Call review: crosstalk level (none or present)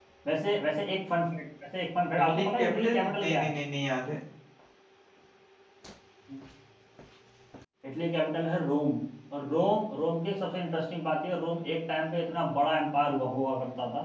present